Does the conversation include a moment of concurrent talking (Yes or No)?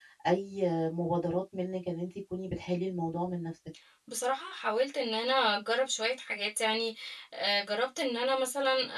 No